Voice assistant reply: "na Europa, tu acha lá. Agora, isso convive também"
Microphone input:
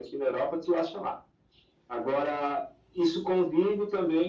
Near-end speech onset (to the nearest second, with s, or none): none